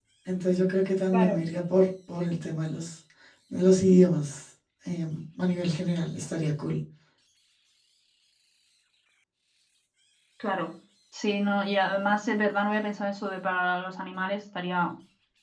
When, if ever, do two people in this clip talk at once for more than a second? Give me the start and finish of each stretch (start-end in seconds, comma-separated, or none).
none